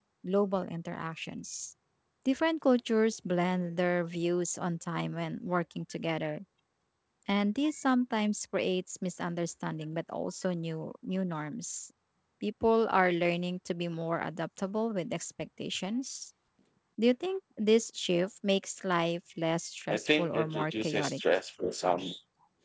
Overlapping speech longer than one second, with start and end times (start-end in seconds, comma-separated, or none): 19.9-21.2